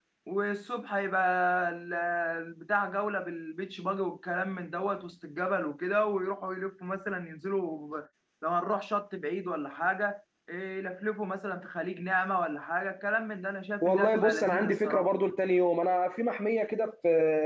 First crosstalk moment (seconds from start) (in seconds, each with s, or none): 13.8 s